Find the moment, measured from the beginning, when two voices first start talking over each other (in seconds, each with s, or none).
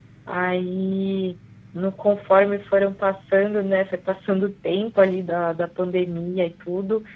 none